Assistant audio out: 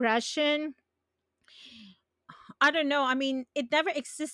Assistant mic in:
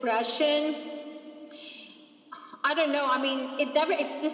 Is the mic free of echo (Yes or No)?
No